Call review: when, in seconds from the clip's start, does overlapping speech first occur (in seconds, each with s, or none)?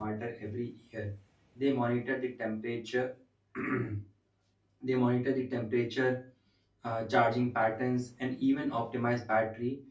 none